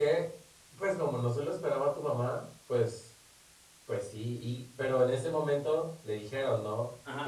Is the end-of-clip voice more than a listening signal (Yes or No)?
Yes